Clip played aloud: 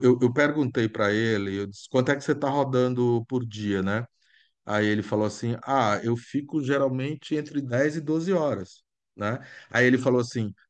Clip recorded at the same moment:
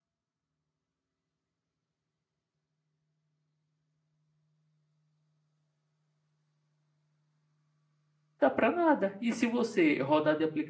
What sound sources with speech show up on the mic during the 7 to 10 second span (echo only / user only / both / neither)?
user only